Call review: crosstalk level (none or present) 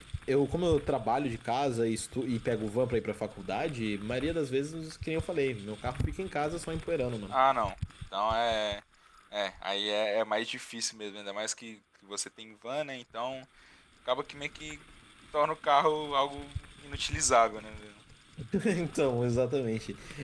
none